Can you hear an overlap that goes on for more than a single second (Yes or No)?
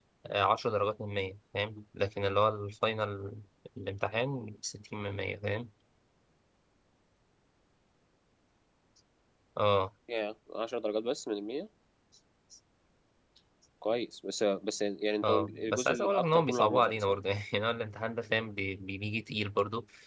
Yes